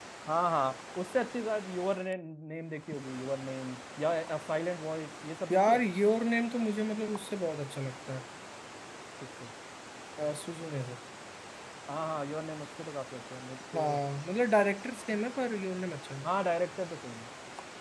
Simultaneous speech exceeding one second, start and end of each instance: none

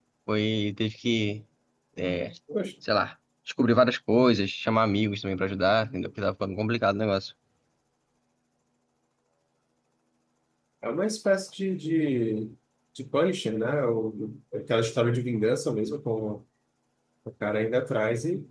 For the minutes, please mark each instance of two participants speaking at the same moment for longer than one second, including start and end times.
none

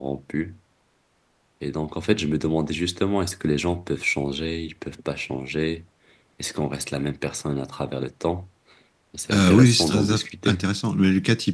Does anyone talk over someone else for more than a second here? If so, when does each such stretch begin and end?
9.3-10.6

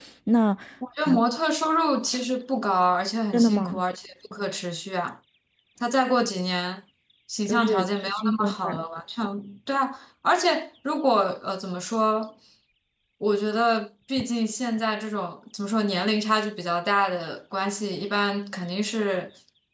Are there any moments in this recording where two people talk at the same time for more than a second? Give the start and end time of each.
7.5-8.8

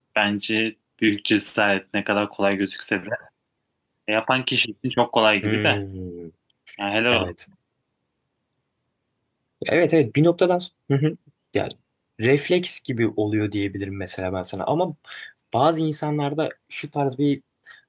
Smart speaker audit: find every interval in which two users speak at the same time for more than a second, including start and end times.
none

